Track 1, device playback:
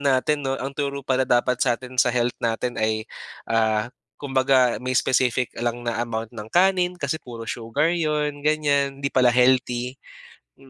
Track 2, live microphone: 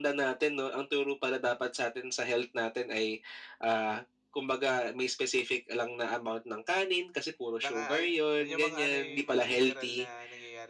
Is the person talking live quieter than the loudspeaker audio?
Yes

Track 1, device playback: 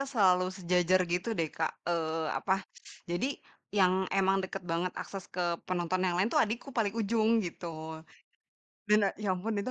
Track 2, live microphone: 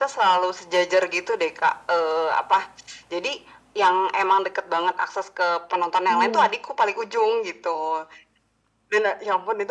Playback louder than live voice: Yes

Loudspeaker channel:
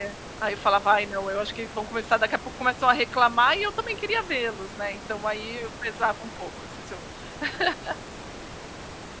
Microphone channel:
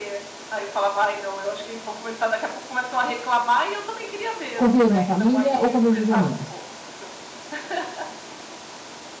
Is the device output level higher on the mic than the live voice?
No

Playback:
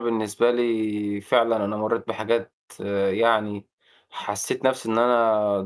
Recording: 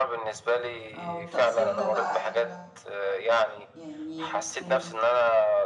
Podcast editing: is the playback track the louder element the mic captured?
Yes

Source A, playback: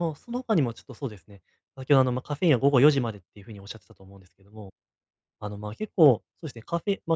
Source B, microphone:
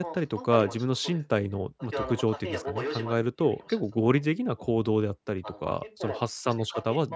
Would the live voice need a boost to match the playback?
No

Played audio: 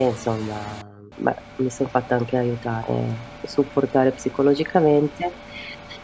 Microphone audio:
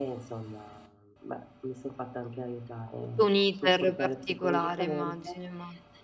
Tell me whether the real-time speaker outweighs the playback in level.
Yes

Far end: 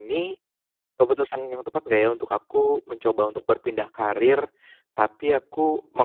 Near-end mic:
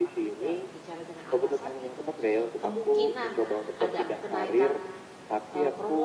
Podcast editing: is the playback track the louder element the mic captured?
Yes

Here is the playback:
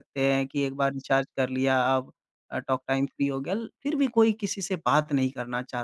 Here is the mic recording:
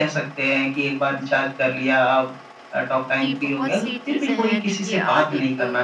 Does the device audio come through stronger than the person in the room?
Yes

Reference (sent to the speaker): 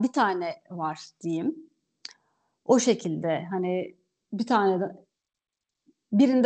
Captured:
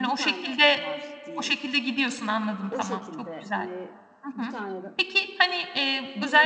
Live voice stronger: Yes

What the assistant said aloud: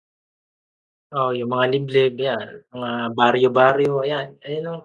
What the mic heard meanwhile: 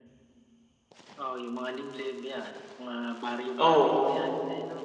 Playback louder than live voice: No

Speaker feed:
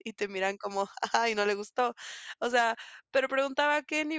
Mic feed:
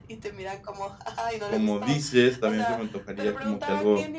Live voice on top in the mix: Yes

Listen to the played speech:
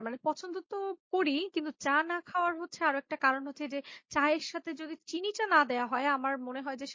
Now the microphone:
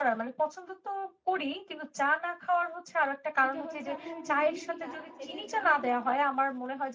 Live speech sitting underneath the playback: Yes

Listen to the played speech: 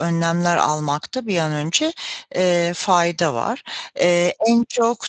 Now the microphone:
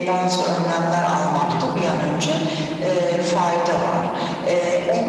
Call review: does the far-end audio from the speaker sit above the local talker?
Yes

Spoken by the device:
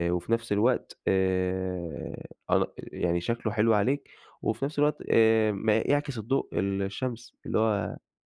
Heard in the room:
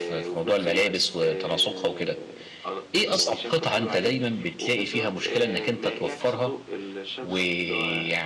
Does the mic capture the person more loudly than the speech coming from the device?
Yes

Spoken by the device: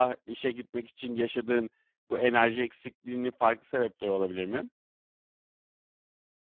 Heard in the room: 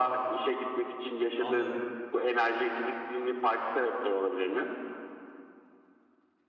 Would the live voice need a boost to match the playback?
Yes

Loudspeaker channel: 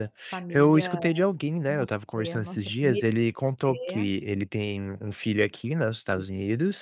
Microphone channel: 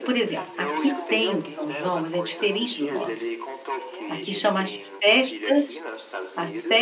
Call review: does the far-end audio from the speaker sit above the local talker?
No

